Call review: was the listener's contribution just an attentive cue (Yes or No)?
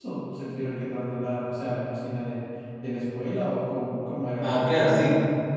No